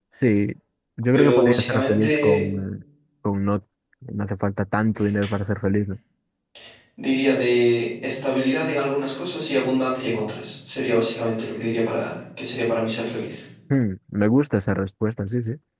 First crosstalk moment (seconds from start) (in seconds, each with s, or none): 1.1 s